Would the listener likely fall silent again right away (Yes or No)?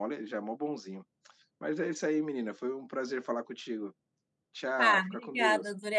No